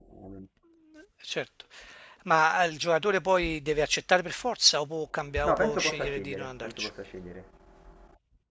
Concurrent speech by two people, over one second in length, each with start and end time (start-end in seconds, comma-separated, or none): 5.4-6.9